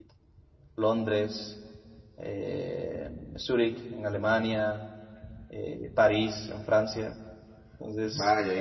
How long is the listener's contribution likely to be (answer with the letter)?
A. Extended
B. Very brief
A